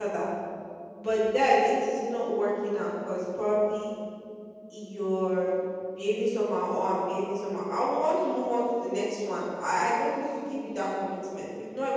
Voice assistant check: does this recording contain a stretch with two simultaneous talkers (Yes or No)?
No